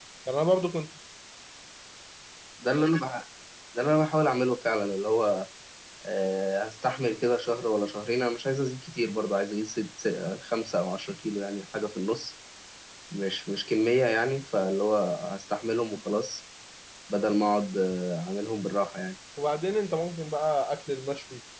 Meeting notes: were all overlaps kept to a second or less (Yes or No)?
Yes